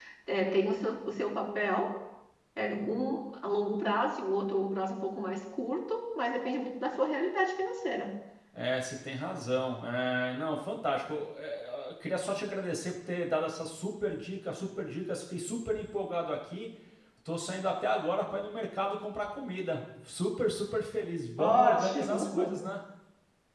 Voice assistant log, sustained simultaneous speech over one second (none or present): present